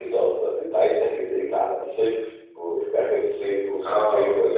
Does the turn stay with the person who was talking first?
No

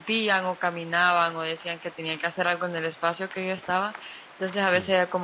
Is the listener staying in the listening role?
Yes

